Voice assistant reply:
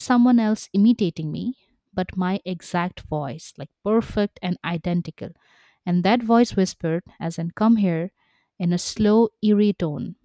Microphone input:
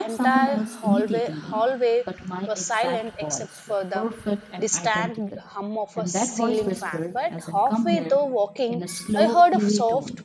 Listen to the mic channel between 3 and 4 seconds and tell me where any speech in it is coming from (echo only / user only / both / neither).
both